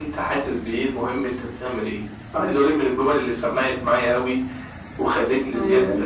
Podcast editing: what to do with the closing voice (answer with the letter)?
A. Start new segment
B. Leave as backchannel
B